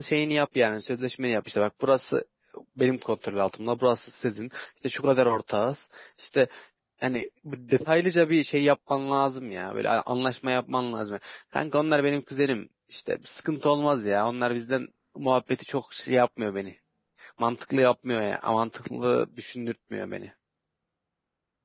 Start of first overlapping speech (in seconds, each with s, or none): none